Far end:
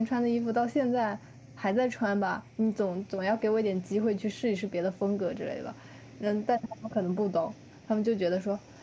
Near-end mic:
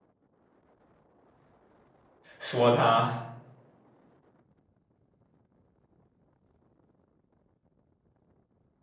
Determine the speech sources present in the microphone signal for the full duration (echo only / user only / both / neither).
user only